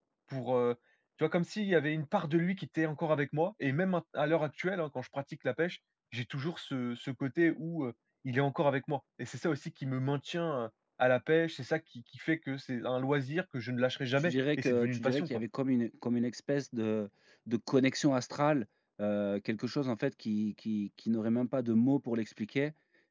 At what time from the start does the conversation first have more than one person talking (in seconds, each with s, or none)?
14.2 s